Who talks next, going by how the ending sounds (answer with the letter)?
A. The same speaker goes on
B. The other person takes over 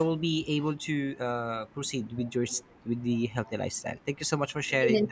B